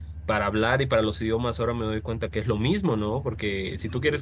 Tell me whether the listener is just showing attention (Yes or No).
Yes